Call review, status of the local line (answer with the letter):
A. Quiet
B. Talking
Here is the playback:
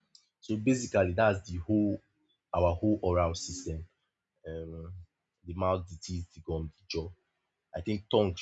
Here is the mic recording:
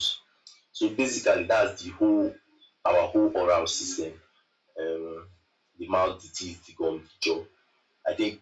A